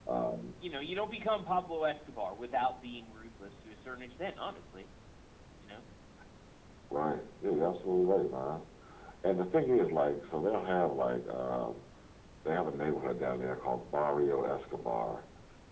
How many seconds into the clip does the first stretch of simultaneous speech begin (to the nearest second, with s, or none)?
none